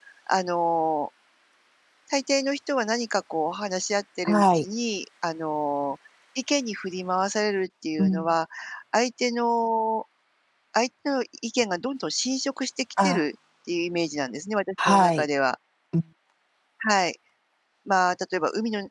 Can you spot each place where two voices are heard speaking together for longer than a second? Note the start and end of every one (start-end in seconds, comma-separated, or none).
none